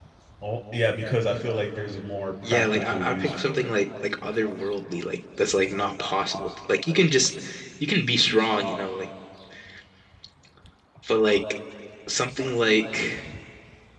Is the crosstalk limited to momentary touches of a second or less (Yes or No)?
No